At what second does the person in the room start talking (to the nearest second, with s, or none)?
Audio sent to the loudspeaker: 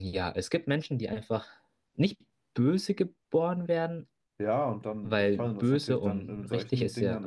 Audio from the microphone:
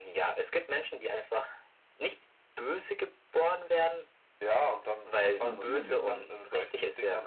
5 s